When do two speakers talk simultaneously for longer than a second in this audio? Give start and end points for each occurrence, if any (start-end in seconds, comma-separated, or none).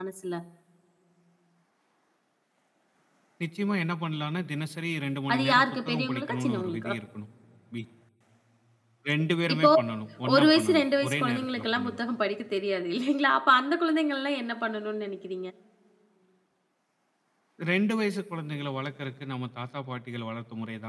5.3-6.9, 10.3-12.0